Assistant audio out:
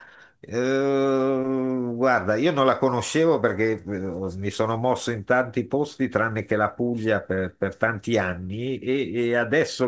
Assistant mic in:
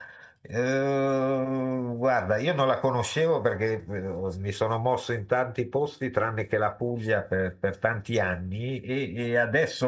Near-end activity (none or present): none